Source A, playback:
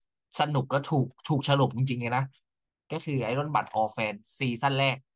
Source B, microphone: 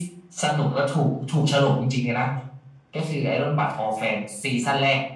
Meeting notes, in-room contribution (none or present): none